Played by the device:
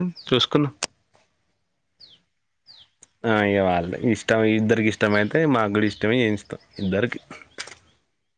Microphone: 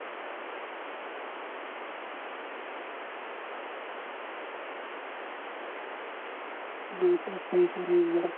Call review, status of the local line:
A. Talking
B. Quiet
A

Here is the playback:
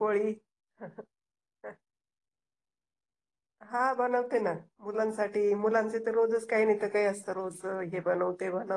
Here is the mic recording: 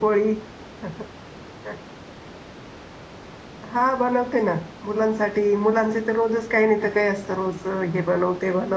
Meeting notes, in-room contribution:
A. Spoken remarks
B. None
B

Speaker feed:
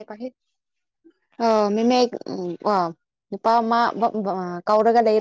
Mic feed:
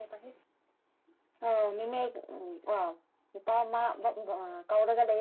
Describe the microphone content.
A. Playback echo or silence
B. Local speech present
A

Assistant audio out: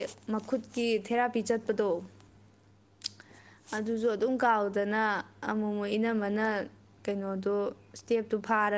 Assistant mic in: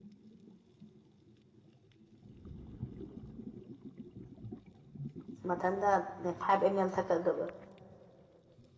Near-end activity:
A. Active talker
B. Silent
A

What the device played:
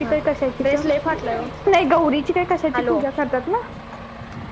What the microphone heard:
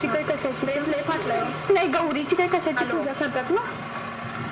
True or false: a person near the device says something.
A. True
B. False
B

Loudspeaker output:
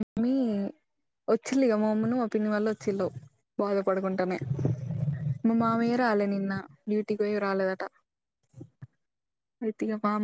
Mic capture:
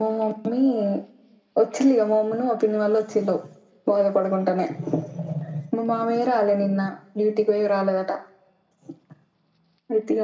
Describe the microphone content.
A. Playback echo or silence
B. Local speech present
A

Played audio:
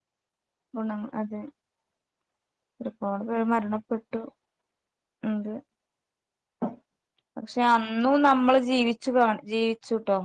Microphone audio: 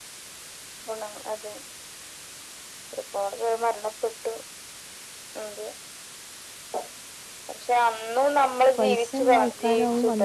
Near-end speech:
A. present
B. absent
A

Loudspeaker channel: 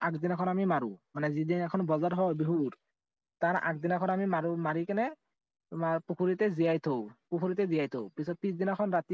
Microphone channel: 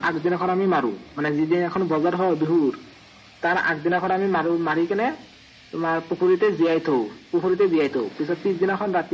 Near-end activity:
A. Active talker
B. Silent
B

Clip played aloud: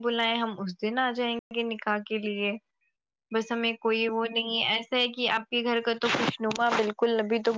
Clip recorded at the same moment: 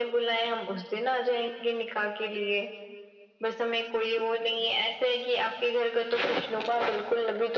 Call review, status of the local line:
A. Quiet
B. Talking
A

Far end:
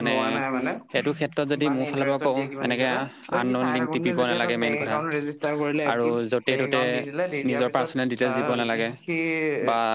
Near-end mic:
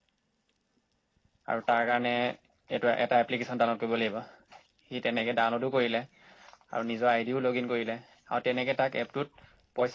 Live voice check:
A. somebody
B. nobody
A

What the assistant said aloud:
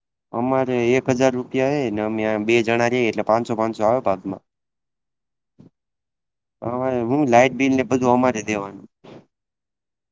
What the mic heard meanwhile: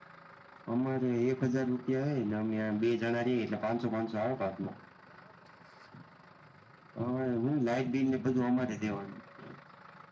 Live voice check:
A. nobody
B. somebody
A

